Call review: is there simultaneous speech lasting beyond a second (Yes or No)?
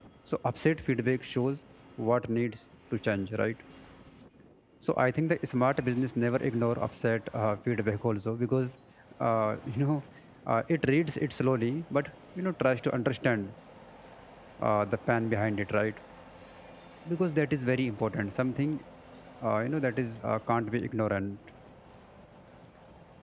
No